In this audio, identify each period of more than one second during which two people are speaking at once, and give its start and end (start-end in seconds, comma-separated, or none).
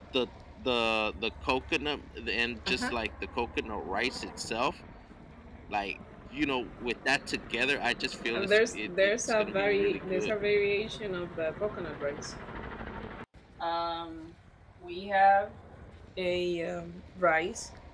8.3-10.3